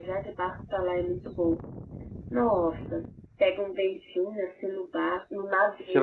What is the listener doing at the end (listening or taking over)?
taking over